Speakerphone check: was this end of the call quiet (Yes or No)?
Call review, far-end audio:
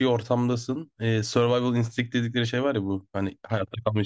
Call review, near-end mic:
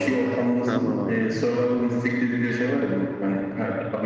No